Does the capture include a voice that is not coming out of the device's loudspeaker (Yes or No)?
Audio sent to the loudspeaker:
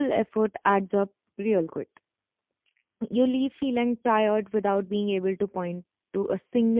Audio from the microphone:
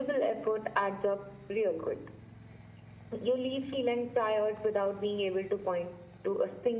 No